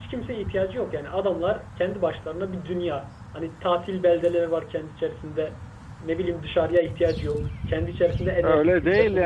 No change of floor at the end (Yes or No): No